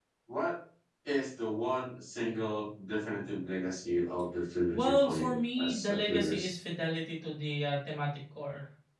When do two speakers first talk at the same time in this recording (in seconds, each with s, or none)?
4.7 s